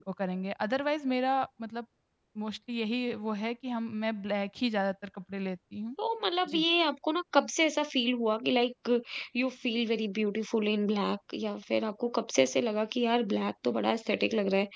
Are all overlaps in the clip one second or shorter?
Yes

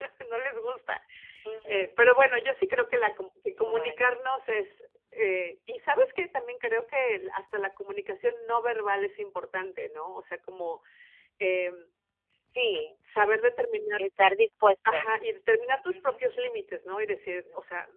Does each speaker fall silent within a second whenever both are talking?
Yes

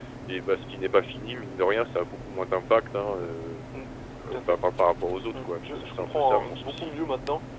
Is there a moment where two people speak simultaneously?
Yes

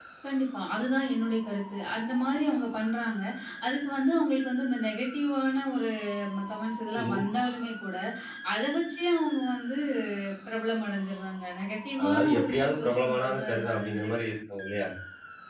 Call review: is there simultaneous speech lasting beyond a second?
Yes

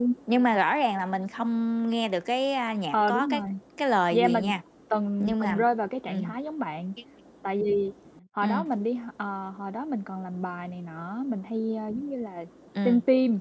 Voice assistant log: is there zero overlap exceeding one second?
Yes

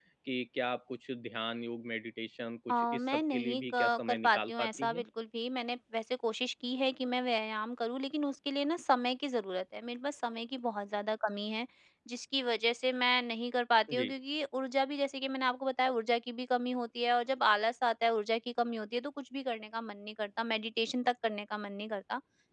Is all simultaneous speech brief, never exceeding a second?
No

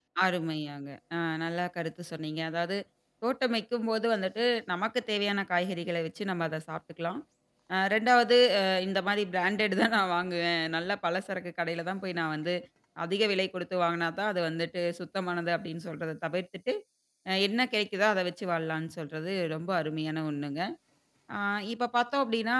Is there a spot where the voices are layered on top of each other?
No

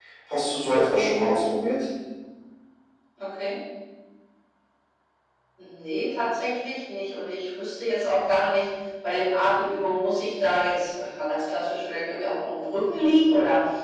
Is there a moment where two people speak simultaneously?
No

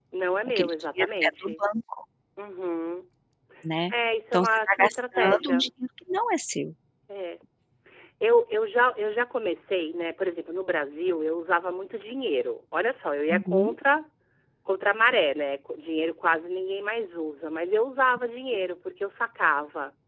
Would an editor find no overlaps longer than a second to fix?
No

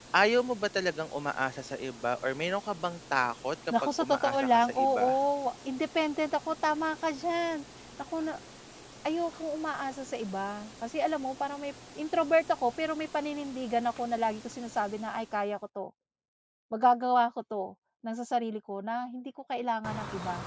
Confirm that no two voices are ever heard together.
No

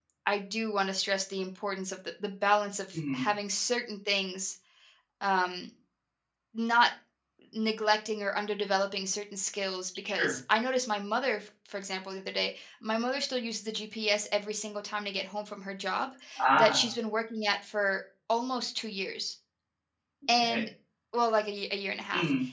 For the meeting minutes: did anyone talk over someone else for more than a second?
No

